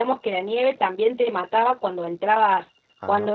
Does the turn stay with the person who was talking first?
Yes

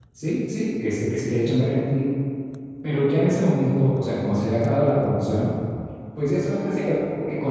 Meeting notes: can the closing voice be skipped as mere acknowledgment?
Yes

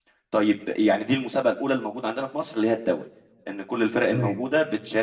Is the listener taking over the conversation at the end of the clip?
No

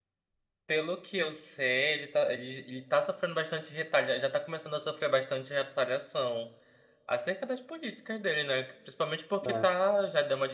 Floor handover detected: No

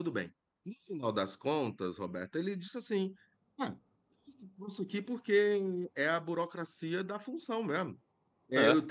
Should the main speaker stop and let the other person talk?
No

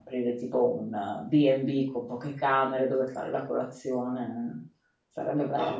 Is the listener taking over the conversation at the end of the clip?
Yes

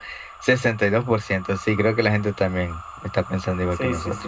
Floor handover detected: Yes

